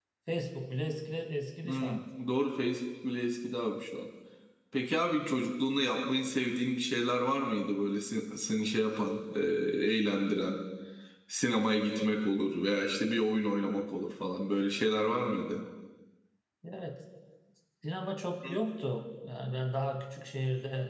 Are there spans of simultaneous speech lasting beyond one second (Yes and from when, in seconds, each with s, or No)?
No